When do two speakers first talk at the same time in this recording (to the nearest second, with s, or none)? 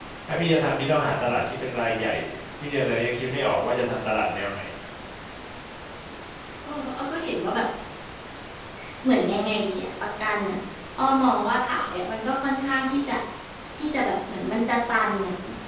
none